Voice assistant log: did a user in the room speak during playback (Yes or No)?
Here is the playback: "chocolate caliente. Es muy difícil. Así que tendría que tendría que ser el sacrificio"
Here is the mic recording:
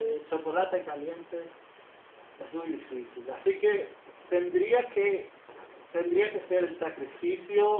No